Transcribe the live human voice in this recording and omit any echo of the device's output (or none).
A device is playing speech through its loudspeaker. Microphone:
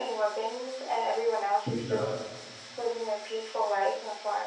Yeah.